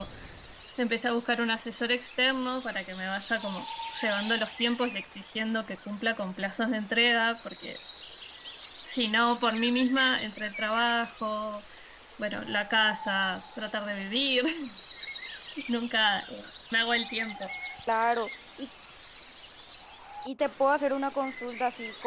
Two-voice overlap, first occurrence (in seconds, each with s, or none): none